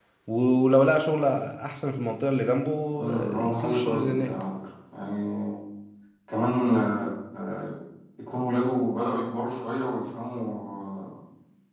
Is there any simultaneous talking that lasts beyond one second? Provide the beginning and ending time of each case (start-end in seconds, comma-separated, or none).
3.1-4.3